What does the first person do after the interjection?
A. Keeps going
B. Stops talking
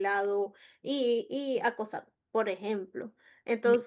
A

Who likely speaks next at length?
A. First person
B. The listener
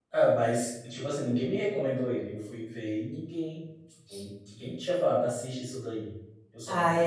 B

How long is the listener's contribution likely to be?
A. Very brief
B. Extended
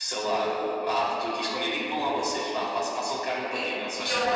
B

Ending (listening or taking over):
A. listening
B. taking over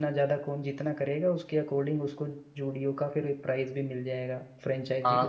B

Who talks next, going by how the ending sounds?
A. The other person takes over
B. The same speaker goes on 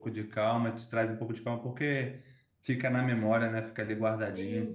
A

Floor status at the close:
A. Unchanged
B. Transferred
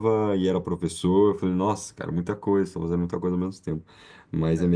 A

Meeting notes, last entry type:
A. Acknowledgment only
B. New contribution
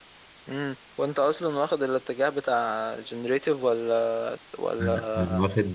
B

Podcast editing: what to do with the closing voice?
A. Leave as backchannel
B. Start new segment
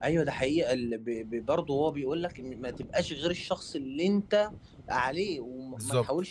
A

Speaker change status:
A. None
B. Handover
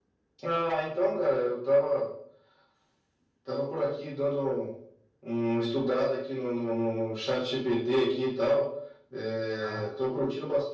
A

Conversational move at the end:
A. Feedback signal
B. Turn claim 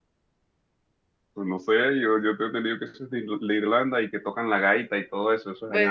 B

